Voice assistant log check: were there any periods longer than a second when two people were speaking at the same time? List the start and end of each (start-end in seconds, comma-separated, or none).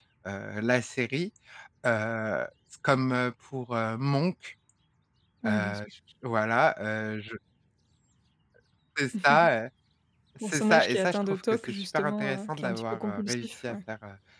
10.4-13.8